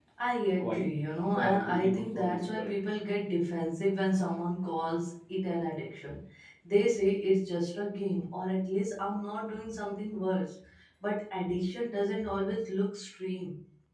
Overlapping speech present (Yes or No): Yes